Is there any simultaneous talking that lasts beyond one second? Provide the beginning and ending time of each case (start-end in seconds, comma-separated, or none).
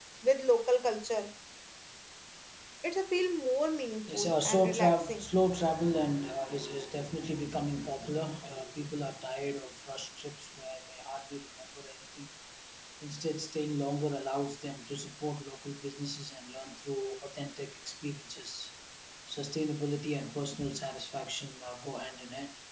4.1-5.3